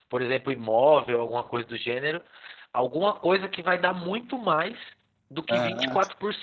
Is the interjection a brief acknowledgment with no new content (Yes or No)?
Yes